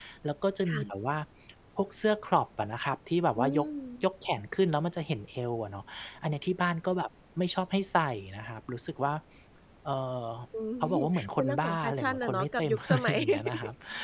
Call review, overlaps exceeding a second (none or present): present